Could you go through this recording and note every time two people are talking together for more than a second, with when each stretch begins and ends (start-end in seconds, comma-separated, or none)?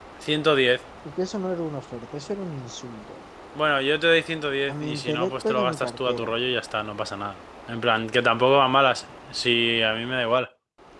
4.7-6.3